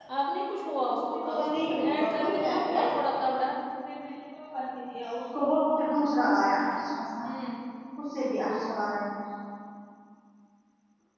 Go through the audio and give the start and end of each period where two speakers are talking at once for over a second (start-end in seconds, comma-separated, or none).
1.0-2.9